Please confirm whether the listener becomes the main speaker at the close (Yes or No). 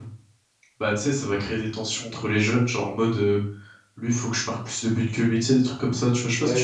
Yes